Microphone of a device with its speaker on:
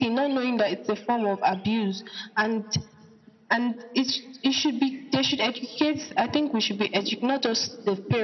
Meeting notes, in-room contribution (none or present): none